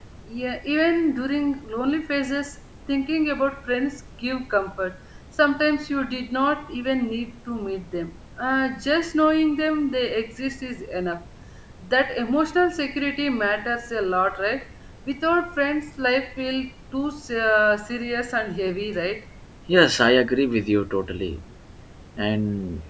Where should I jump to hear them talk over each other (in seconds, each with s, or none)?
none